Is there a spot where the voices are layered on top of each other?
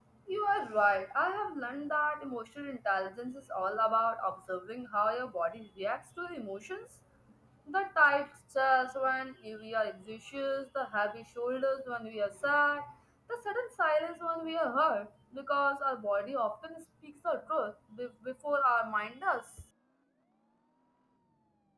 No

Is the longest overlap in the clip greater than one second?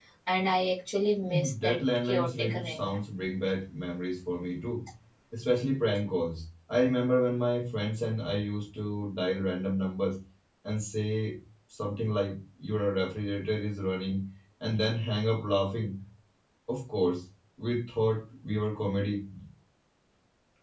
Yes, from 1.2 s

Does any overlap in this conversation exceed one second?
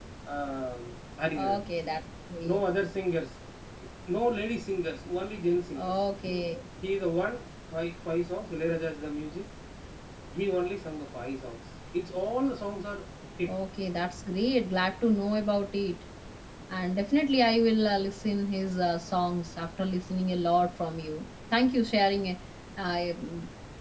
No

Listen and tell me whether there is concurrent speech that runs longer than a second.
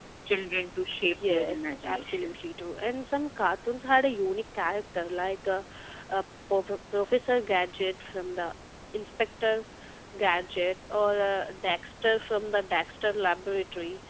Yes, from 1.0 s

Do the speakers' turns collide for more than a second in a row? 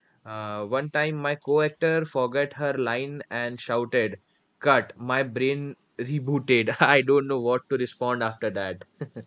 No

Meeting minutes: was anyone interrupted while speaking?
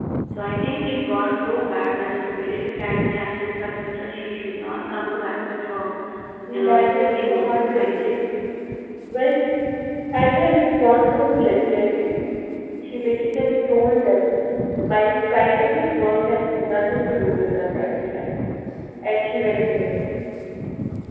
Yes, from 6.5 s

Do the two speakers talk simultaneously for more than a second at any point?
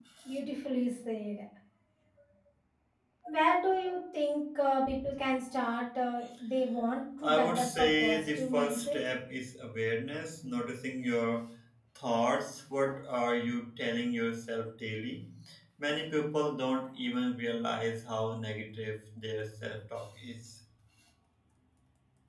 Yes, from 7.2 s

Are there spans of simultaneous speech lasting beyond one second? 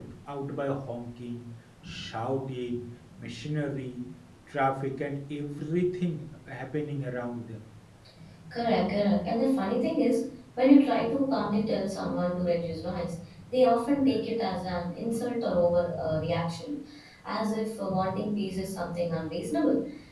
No

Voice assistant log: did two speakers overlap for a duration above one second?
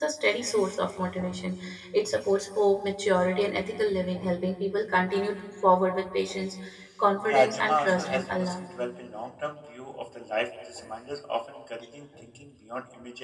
Yes, from 7.3 s

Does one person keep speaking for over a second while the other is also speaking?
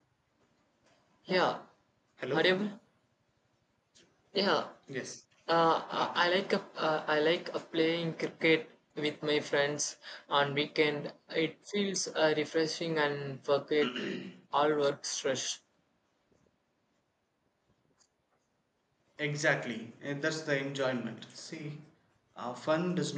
No

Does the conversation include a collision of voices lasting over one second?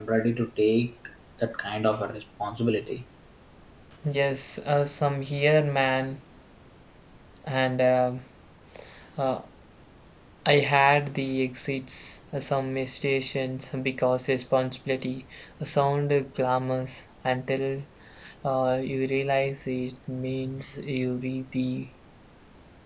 No

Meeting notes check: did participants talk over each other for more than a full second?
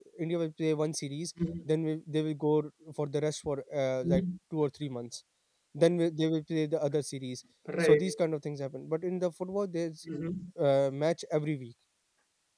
No

